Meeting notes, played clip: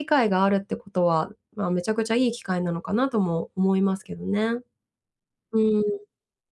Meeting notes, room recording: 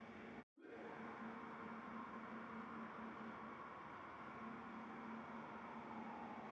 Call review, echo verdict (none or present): none